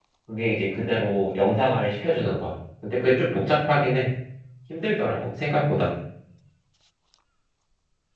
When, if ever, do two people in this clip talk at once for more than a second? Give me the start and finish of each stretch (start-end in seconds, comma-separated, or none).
none